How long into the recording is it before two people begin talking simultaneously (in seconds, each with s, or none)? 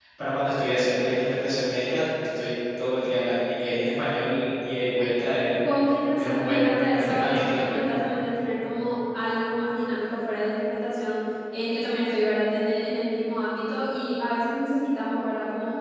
6.2 s